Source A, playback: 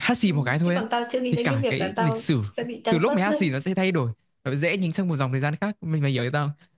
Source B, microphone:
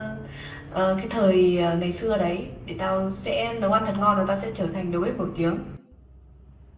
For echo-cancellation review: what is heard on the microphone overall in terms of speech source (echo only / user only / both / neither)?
user only